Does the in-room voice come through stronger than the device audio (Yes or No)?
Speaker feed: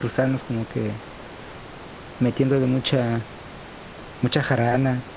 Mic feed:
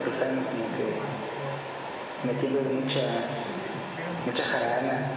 No